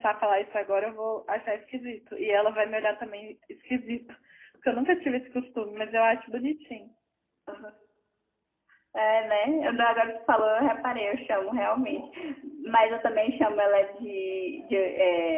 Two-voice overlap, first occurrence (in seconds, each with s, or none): none